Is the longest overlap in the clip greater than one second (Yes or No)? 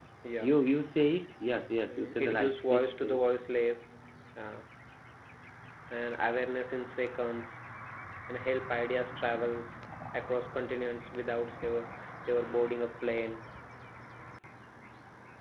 Yes